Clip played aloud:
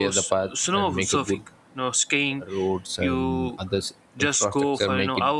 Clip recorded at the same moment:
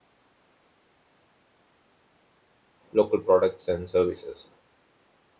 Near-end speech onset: 3 s

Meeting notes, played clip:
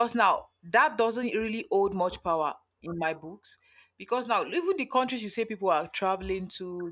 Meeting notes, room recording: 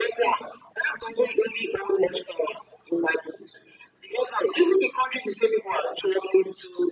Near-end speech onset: none

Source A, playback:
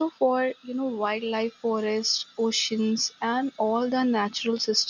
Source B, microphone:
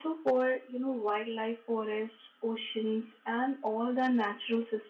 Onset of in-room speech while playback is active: none

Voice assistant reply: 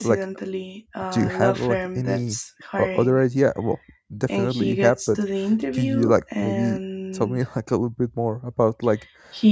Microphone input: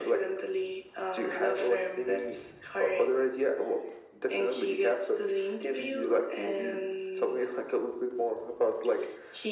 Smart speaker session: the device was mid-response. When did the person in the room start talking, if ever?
none

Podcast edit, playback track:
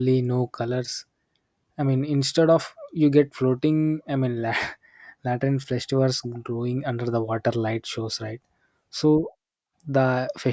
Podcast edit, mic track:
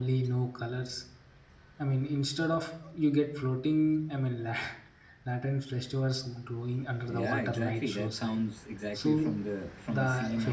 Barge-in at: 7 s

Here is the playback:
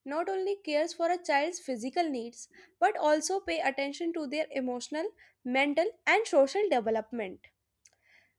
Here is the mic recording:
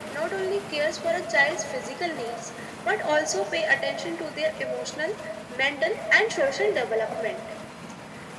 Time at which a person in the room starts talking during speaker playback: none

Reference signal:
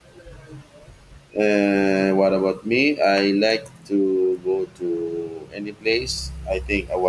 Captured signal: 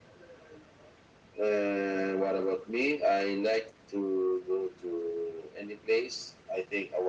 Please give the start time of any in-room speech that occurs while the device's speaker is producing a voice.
none

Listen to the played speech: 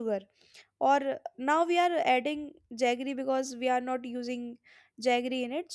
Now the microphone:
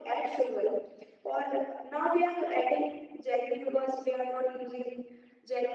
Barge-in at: none

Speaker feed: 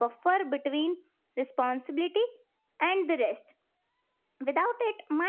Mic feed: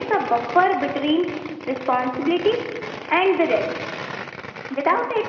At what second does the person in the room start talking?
none

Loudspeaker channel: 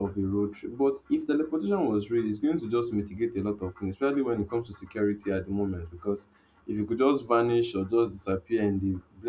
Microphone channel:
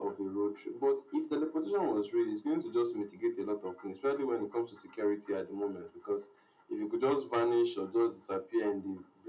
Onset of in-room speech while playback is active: none

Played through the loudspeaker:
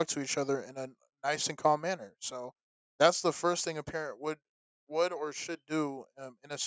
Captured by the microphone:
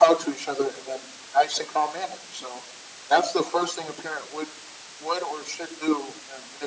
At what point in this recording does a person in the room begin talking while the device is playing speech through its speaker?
none

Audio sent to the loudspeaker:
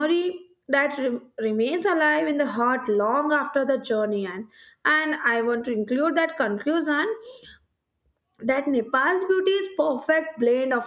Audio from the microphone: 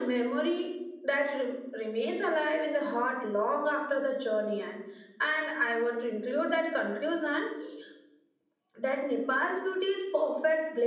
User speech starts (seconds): none

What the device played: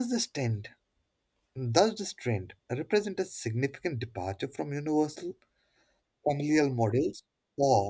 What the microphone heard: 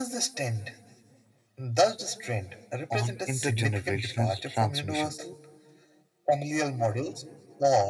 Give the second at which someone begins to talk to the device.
3 s

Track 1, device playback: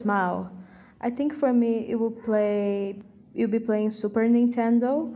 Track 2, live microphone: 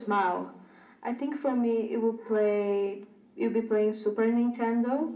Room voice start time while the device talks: none

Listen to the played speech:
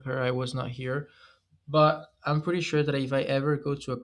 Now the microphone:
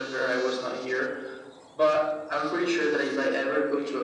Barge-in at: none

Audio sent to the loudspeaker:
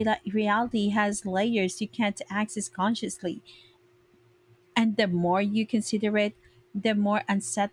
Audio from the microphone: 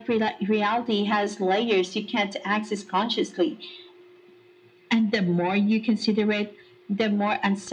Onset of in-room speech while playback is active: none

